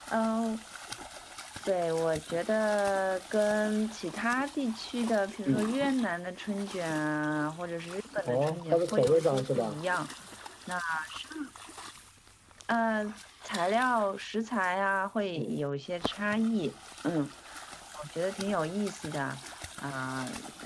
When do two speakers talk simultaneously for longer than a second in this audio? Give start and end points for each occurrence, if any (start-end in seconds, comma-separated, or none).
8.2-9.8